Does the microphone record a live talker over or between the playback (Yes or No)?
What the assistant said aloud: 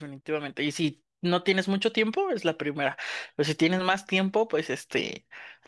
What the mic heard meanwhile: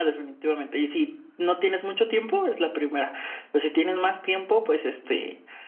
No